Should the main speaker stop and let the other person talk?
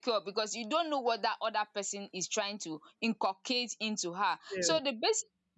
No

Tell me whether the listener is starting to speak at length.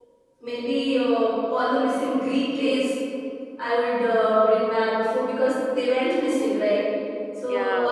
No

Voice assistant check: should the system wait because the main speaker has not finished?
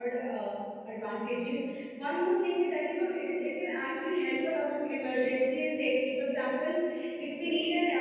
Yes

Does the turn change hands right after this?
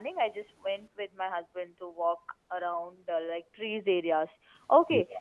No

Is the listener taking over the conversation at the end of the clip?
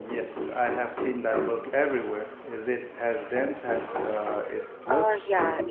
Yes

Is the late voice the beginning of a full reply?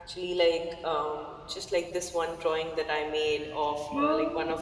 No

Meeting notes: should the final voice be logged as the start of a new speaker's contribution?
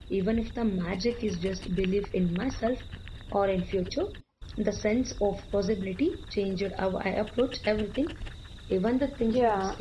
Yes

